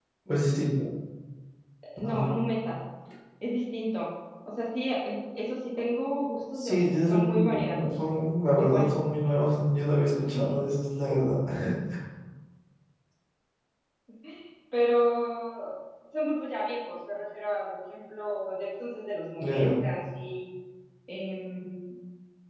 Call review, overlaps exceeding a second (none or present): present